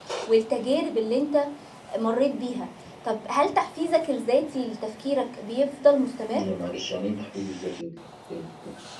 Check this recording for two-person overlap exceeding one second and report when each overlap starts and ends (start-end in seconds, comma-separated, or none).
none